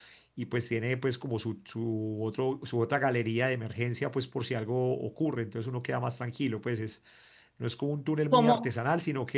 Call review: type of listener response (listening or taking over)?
listening